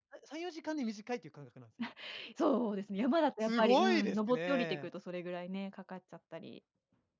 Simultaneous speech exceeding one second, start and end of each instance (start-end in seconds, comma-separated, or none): 3.4-4.9